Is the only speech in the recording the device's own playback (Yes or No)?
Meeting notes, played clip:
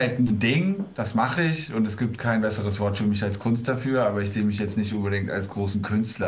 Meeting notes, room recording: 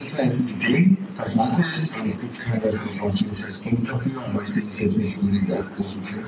Yes